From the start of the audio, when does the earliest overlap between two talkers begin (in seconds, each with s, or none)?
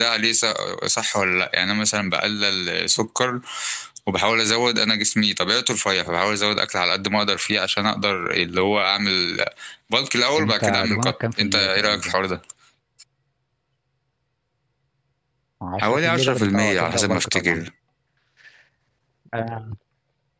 10.3 s